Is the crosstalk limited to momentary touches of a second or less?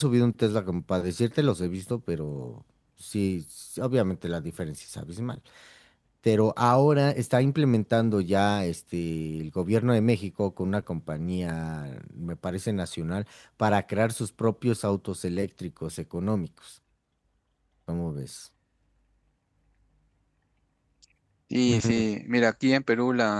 Yes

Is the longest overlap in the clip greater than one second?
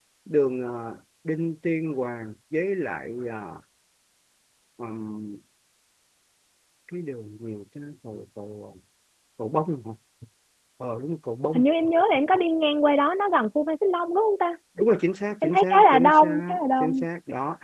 Yes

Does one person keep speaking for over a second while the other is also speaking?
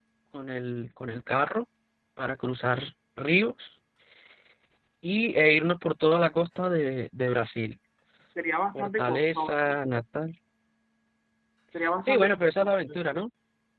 Yes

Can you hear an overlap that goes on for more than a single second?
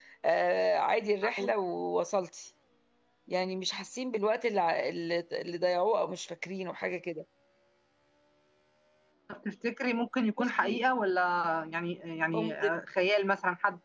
No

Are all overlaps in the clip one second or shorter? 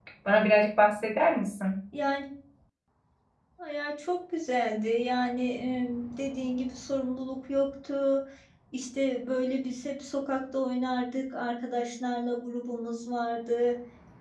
Yes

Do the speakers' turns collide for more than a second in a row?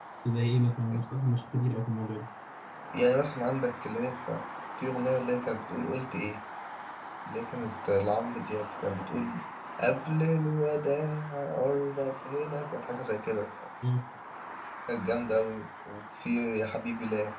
No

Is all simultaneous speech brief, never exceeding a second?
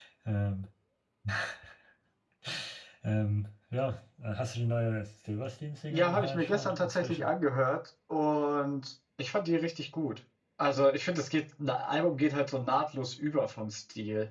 No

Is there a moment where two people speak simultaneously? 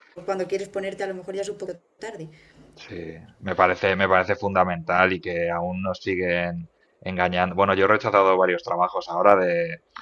No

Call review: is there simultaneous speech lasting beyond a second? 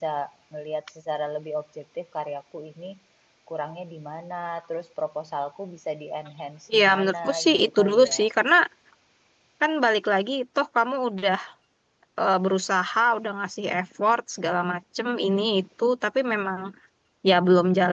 Yes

